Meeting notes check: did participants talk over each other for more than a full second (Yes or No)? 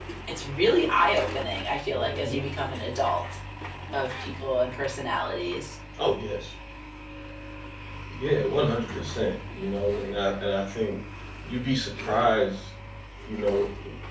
No